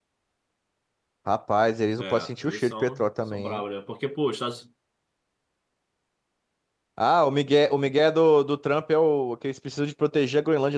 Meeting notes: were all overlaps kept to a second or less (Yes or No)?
No